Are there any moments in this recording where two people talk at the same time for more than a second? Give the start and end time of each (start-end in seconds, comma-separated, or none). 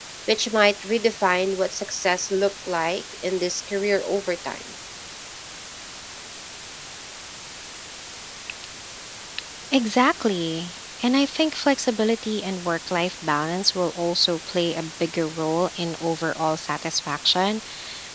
none